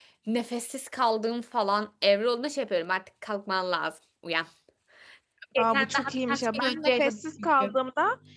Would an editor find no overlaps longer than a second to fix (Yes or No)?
No